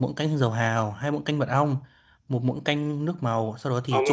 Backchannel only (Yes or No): No